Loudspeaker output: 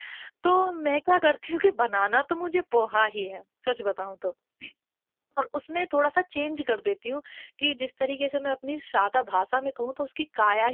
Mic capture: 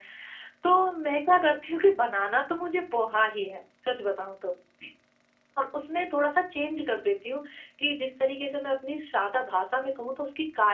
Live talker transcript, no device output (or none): none